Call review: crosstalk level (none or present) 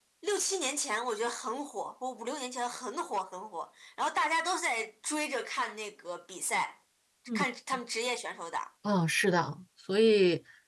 none